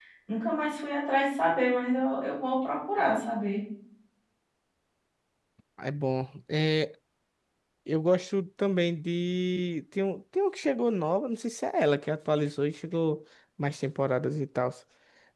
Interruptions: none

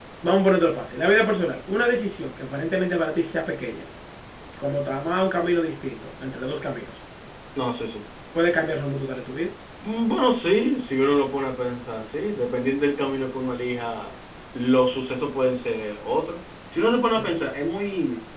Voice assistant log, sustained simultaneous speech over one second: none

